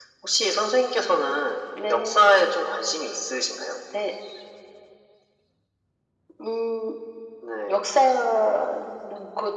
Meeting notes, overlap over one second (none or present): none